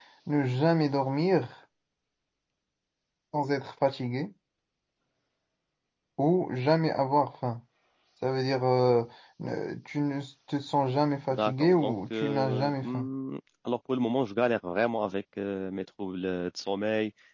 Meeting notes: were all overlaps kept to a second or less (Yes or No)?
No